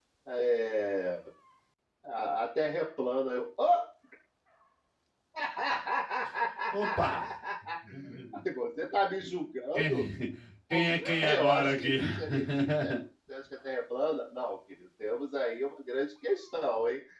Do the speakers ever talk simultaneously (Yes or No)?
Yes